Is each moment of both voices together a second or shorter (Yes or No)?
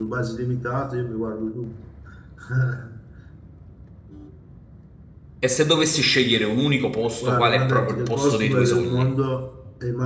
No